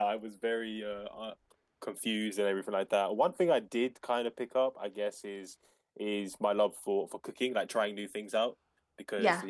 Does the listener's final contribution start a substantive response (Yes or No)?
No